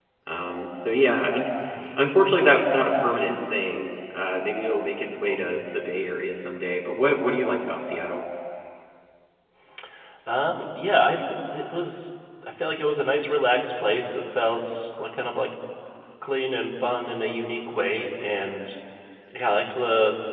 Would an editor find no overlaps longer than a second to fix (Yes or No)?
Yes